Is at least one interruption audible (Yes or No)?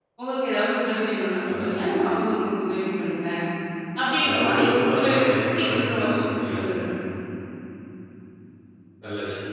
Yes